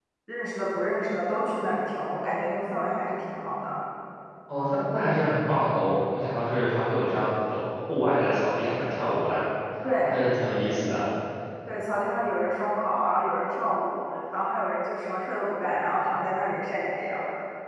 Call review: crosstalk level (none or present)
none